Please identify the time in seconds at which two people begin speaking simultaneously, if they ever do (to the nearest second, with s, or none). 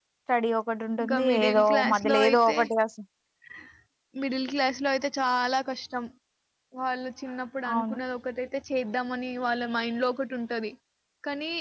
1 s